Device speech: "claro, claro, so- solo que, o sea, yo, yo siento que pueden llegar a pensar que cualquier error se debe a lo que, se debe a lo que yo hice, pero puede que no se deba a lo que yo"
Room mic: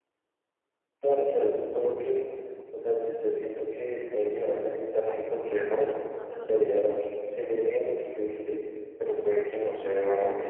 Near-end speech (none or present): present